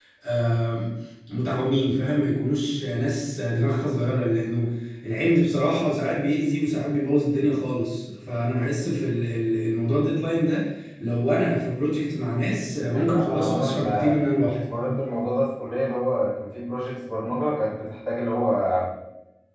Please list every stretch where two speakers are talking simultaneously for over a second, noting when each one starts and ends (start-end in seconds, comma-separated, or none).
12.8-14.2